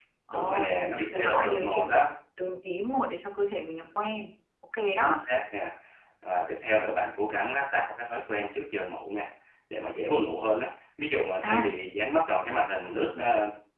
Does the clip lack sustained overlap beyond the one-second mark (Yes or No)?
No